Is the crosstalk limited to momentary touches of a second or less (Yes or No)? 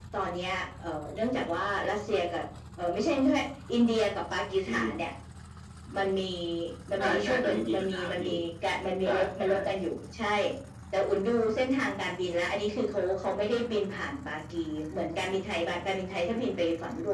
No